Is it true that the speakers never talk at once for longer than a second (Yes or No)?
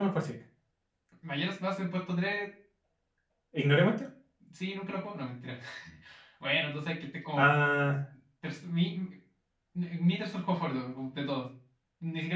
Yes